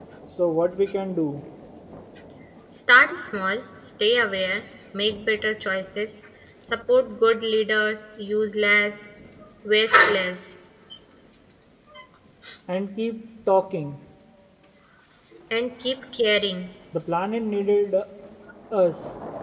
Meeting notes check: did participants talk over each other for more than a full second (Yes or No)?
No